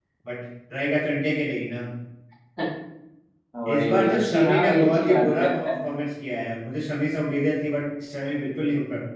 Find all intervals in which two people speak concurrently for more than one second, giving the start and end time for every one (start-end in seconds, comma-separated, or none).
3.7-6.0